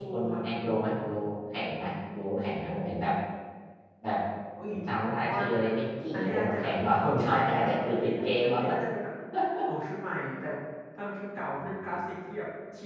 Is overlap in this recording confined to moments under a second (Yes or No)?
No